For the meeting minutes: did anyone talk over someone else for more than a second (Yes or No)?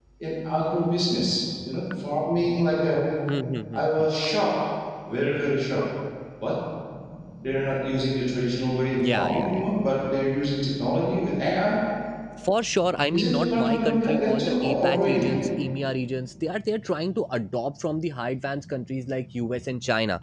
Yes